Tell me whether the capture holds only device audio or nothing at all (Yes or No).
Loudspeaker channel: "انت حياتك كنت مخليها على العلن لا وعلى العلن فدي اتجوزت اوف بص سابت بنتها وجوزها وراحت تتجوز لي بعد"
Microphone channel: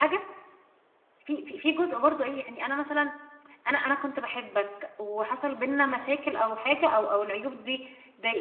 No